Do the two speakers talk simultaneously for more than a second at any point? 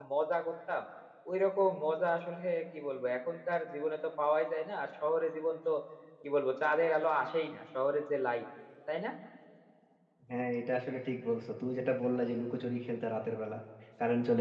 No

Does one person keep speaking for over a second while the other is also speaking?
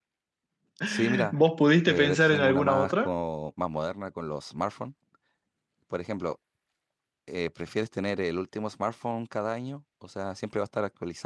Yes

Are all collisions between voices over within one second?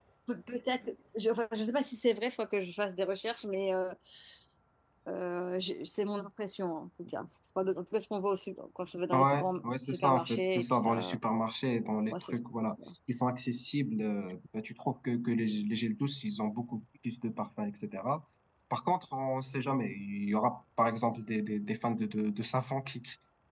No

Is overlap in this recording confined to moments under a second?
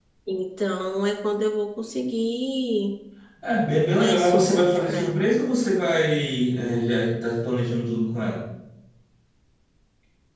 No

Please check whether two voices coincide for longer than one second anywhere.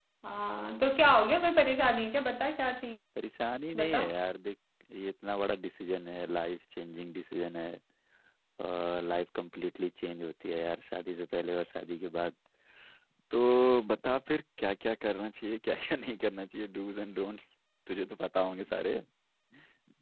No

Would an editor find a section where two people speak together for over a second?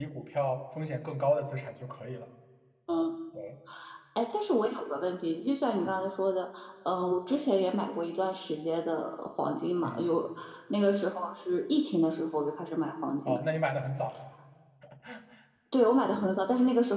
No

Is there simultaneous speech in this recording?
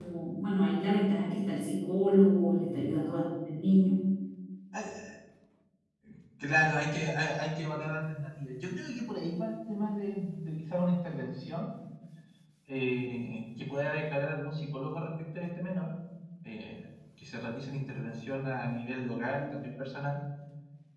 No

